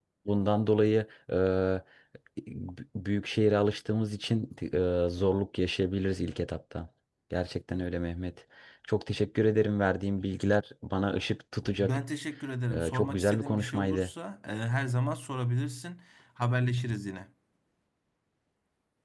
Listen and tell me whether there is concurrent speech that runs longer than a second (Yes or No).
Yes